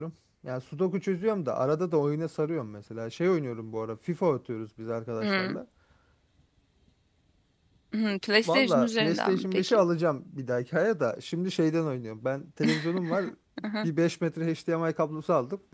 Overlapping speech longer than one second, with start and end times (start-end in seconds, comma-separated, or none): 8.4-9.8